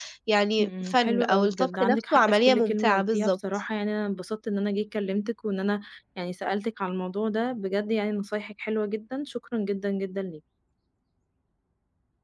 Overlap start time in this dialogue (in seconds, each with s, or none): 0.6 s